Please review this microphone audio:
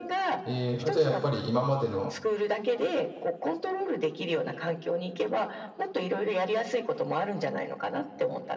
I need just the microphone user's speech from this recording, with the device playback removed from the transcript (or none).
えーあ、じゃあやっぱり今までの